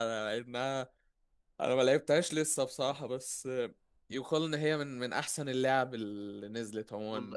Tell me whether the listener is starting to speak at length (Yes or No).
Yes